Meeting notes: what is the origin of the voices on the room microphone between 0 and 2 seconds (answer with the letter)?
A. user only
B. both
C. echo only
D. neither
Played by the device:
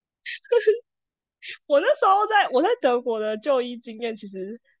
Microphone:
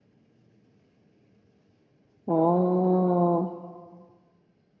D